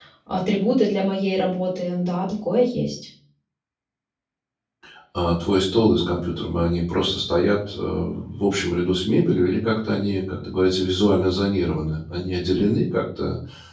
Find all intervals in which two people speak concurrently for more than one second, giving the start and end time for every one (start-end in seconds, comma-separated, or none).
none